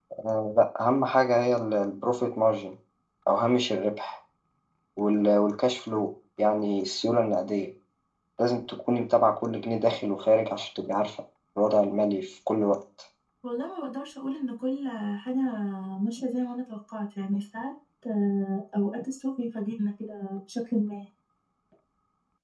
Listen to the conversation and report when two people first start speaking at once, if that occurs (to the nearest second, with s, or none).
none